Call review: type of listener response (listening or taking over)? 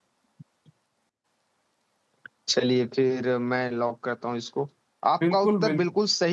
listening